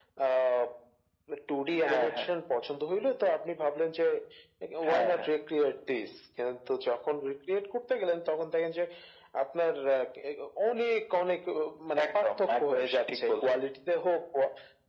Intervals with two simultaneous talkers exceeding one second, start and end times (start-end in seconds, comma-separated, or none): 12.2-13.6